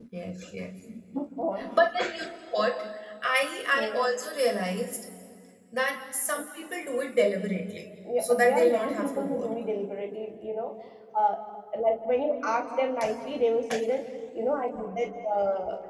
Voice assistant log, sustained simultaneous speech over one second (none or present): present